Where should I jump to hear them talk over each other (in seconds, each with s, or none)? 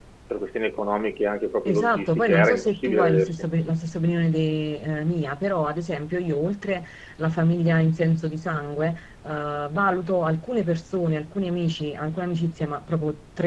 1.6 s